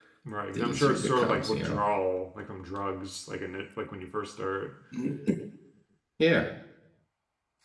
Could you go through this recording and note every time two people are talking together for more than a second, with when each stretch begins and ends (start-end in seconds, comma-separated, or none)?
0.5-1.8